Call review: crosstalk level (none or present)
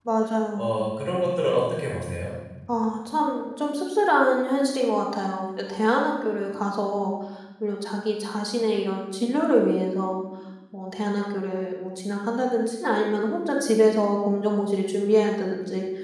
none